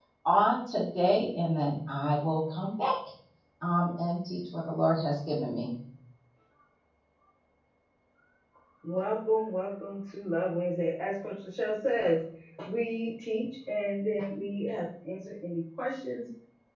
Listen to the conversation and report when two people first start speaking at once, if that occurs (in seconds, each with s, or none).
none